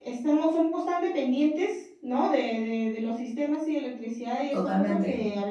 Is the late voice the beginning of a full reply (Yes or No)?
No